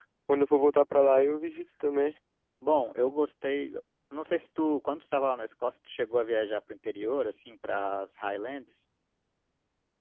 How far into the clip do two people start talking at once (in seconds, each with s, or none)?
none